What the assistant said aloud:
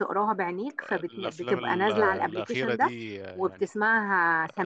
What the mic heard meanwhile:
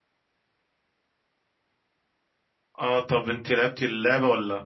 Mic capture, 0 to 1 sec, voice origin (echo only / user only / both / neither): neither